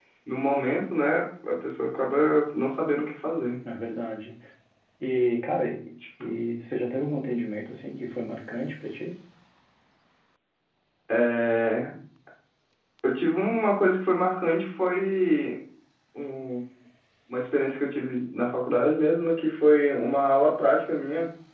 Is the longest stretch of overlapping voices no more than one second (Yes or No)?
Yes